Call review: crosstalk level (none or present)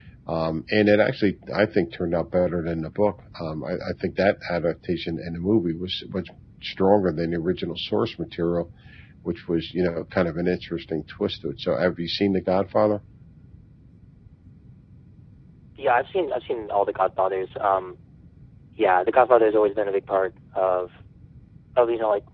none